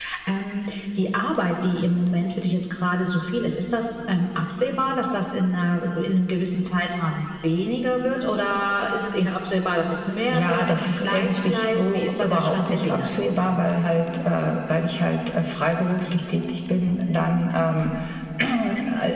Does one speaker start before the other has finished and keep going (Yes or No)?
Yes